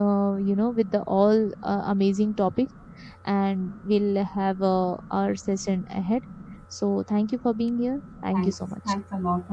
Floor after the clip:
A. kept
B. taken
B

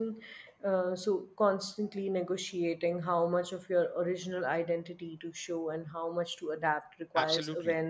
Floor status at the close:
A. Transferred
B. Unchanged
A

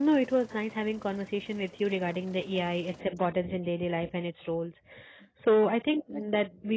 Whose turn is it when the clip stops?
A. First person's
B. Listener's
A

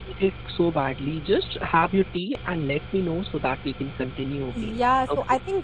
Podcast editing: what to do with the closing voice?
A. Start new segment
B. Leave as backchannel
A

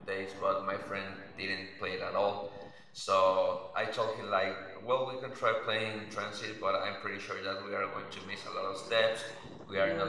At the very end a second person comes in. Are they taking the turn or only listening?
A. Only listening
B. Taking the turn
A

